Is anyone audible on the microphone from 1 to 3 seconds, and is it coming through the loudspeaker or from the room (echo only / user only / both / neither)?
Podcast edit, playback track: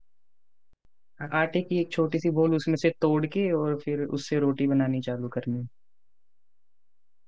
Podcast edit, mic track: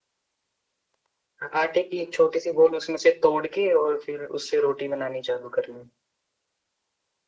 echo only